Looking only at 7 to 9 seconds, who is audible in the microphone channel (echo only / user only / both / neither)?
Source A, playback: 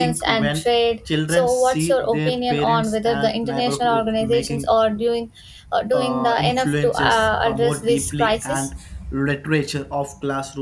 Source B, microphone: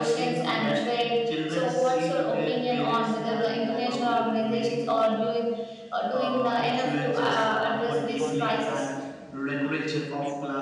both